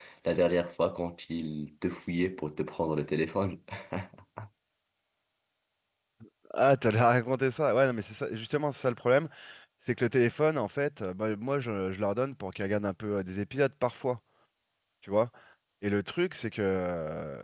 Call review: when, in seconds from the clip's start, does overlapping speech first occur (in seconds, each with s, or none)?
none